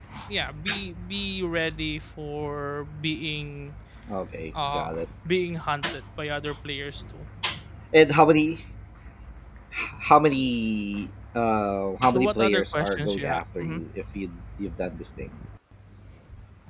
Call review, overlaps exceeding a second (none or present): present